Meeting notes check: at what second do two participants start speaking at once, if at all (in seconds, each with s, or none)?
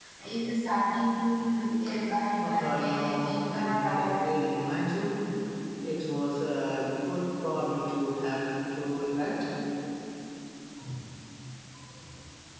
2.4 s